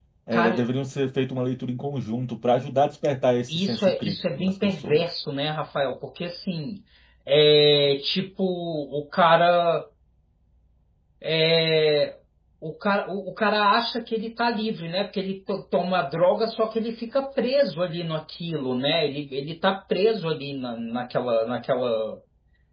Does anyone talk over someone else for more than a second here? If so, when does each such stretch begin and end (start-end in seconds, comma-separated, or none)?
3.5-5.0